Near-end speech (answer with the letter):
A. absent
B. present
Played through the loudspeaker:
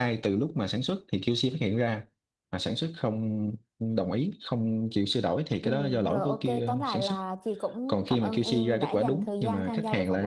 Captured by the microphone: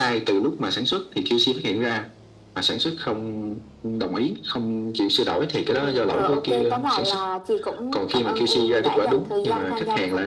A